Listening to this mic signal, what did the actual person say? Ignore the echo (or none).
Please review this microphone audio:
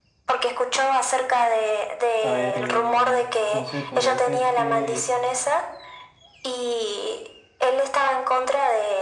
A ver, eh, no sé, podría ser que,